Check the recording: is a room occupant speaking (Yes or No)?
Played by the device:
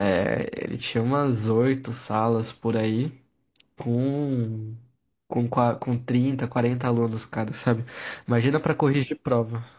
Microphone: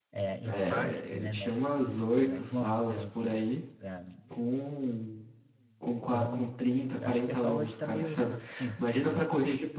Yes